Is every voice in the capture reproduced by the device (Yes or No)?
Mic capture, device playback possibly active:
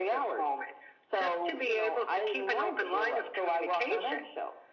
Yes